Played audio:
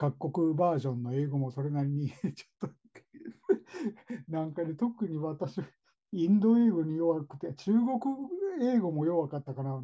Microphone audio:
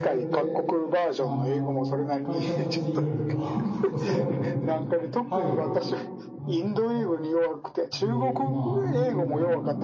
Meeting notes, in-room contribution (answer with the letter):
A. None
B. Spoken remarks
B